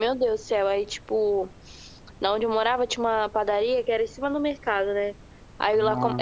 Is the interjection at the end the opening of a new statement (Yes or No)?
No